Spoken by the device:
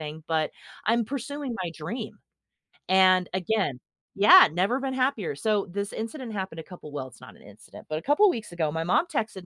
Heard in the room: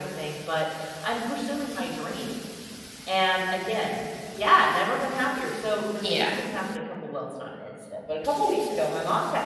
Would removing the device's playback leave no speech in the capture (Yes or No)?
No